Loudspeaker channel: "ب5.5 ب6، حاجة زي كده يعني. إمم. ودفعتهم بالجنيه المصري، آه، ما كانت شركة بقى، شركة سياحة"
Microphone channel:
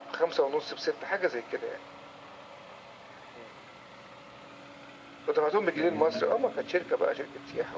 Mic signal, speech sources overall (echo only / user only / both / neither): both